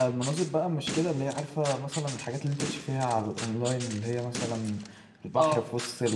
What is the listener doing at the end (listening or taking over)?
listening